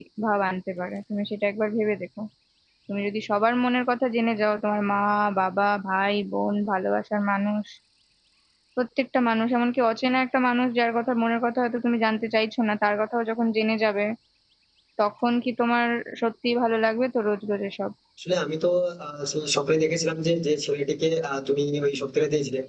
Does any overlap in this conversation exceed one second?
No

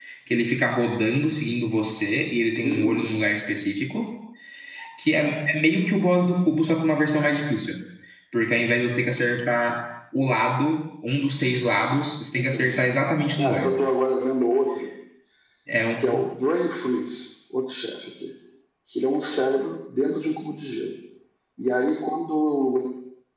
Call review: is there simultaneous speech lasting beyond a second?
No

